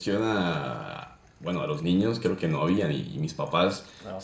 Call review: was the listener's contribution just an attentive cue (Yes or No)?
Yes